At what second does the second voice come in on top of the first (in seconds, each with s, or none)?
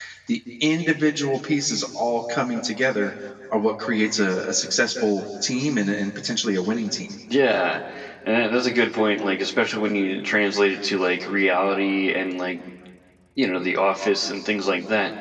none